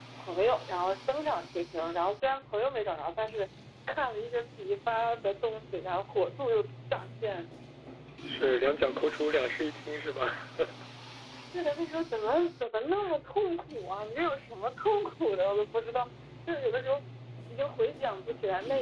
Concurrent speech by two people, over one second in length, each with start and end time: none

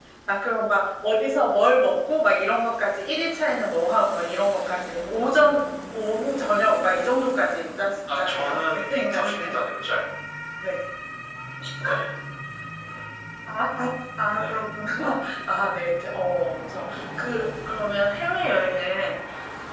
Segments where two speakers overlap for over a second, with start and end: 8.2-9.5

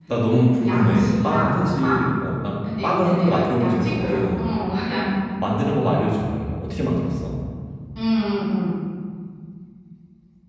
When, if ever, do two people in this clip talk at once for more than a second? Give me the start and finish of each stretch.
0.6-2.1, 2.8-4.4

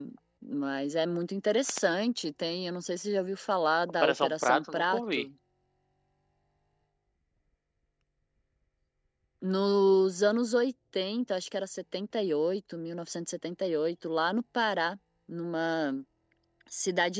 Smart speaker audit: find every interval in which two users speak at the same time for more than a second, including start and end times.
4.0-5.3

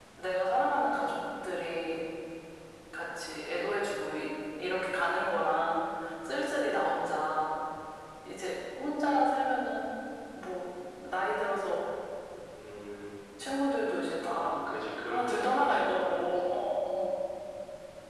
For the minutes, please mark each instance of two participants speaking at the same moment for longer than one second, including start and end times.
15.1-16.3

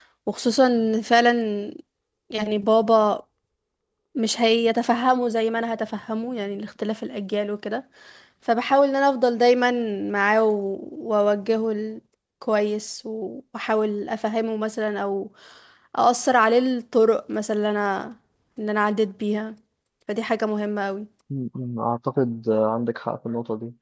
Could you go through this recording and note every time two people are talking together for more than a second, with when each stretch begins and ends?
none

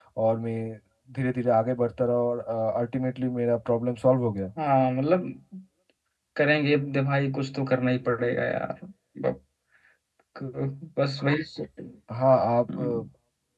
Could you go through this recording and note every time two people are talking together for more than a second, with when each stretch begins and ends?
none

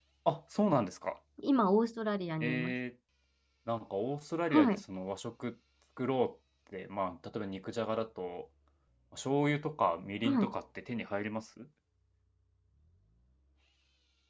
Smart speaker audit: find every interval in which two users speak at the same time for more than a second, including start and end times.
none

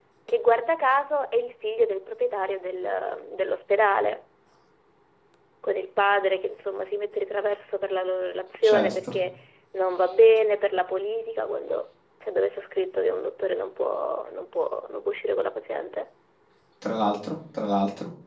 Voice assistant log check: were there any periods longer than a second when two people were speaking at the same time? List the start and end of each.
none

